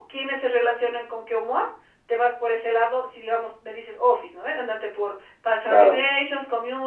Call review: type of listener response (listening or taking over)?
listening